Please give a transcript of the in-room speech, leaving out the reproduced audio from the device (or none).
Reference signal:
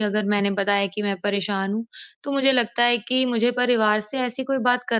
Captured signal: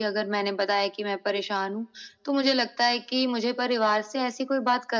none